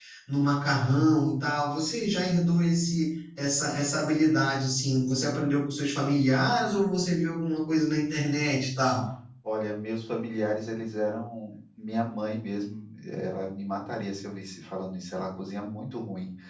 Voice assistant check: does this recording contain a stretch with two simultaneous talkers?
No

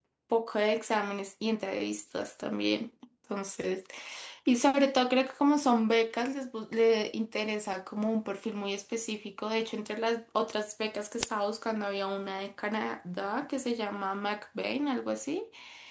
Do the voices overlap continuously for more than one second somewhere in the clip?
No

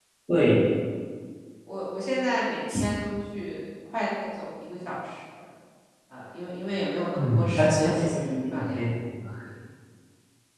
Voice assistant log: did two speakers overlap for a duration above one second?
Yes, from 7.2 s

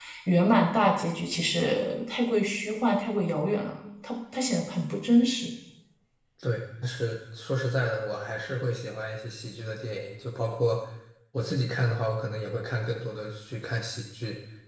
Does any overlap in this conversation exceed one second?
No

